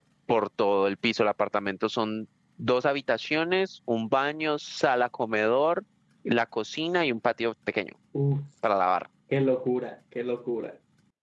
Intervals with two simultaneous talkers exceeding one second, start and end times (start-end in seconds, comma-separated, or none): none